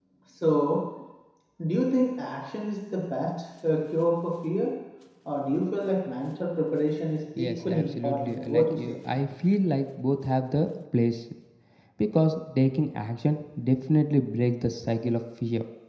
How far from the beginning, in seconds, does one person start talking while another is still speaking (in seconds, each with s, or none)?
7.4 s